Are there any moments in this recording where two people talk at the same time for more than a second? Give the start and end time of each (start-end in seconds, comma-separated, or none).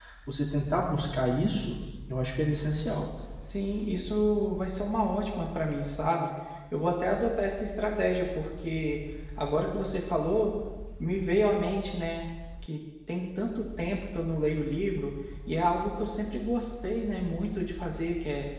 none